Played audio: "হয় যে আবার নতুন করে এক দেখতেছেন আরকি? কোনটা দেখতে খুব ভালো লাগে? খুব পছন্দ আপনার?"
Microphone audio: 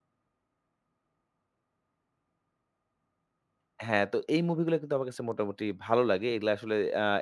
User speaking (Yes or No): Yes